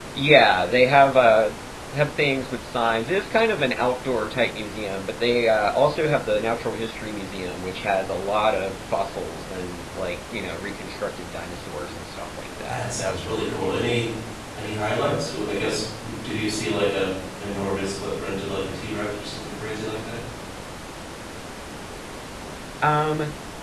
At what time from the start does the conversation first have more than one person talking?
12.7 s

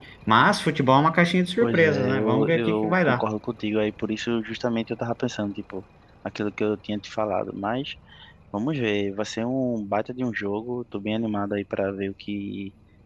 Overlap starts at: 1.6 s

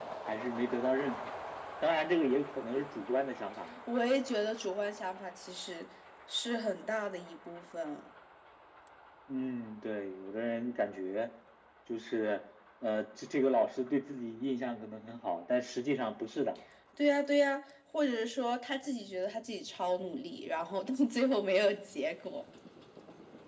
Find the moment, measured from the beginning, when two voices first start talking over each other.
none

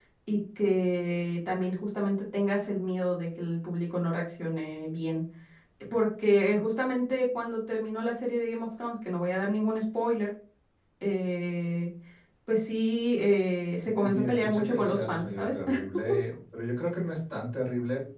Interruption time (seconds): 13.9 s

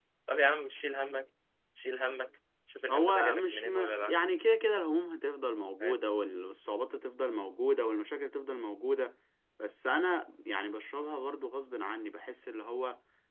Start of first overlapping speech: 2.9 s

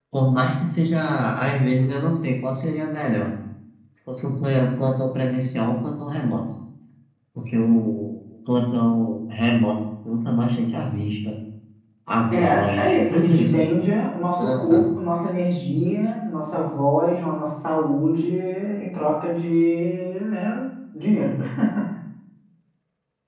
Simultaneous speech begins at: 12.3 s

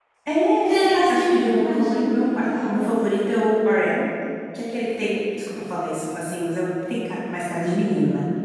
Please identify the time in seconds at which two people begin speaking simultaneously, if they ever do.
0.6 s

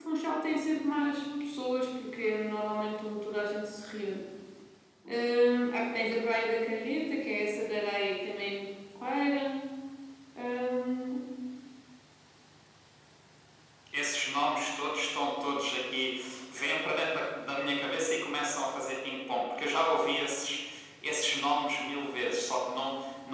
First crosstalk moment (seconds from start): none

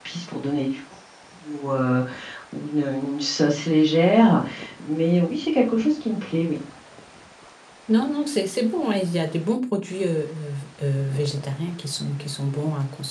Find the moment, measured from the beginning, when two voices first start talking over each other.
none

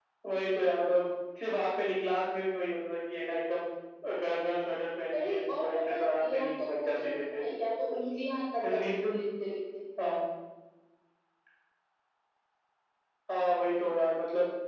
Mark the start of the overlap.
5.1 s

